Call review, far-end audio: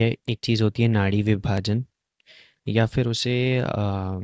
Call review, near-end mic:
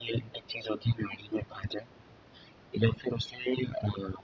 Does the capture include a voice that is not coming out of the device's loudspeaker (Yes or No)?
No